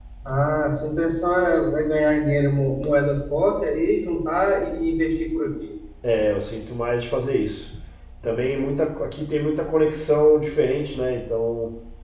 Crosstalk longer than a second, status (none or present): none